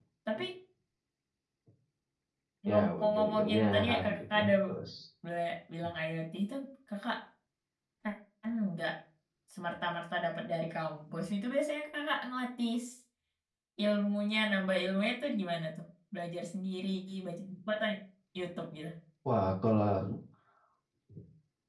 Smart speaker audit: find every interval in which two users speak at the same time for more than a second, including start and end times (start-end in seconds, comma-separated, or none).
2.7-4.5